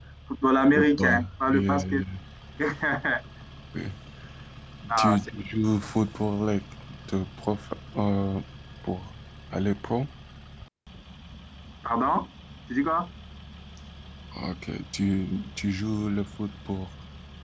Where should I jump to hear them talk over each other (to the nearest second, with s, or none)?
1 s